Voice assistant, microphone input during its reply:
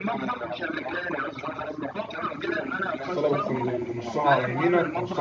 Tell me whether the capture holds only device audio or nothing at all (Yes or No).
No